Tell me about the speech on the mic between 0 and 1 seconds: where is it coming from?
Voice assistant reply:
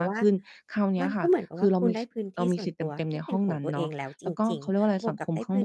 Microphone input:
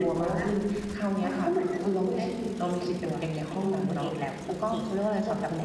echo only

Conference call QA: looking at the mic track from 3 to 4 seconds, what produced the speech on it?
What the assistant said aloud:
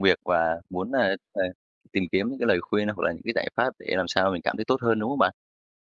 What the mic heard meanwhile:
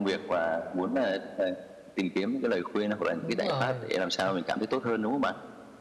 both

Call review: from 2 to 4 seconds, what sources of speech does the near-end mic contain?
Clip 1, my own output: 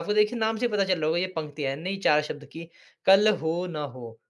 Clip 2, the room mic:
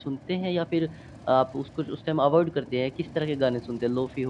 user only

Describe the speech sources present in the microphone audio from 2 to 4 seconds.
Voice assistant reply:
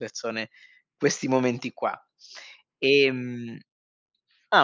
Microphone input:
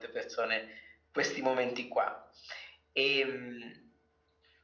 echo only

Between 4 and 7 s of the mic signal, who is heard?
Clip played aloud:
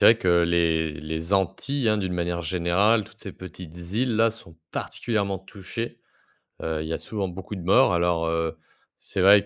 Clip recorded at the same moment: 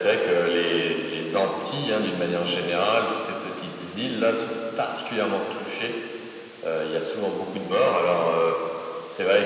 echo only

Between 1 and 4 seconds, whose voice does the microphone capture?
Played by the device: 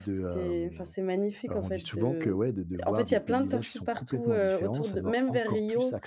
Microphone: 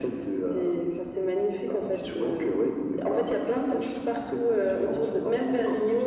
echo only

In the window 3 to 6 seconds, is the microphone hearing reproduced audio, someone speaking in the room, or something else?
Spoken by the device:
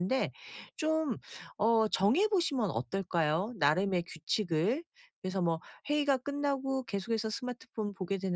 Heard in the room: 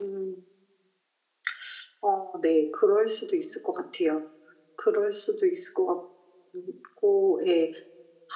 user only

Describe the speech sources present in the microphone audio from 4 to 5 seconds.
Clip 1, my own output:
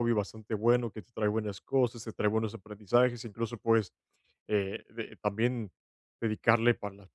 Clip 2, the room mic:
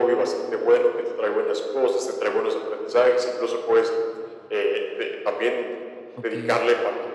echo only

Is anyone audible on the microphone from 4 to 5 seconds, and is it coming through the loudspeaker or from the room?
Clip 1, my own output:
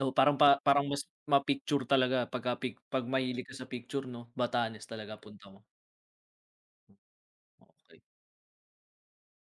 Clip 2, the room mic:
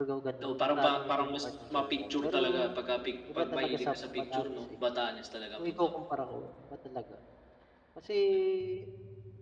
both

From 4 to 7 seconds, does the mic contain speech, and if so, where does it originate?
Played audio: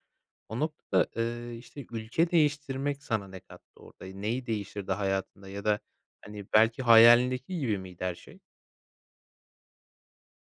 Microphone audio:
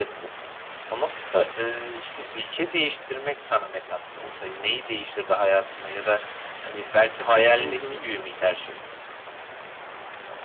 echo only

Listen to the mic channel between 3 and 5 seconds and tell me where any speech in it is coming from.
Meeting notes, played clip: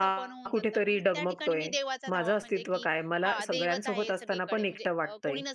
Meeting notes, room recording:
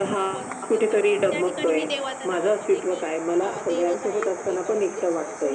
echo only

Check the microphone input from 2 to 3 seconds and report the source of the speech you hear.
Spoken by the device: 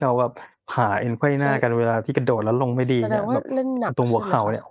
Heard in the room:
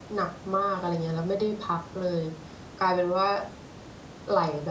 user only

